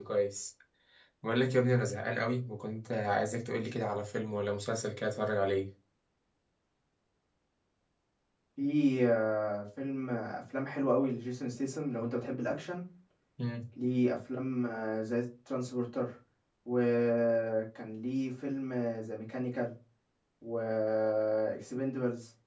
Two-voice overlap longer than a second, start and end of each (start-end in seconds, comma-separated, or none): none